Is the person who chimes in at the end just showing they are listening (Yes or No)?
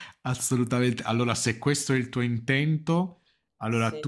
Yes